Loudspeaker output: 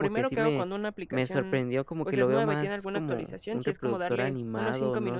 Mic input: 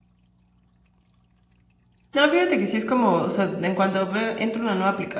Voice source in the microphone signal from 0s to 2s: neither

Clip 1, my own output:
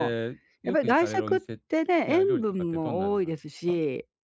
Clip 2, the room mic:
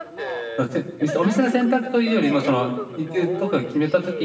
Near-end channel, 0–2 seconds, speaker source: both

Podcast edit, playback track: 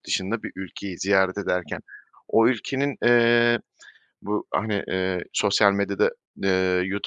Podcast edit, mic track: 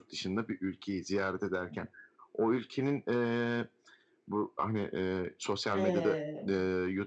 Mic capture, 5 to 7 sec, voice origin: both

